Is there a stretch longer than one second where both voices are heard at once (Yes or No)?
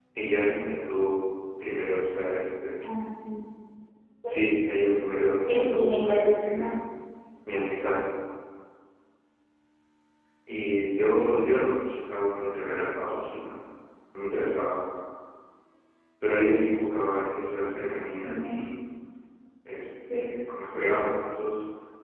Yes